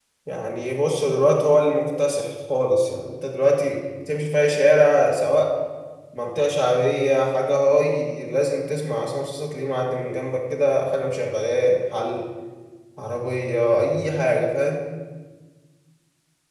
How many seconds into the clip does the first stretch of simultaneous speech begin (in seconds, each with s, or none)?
none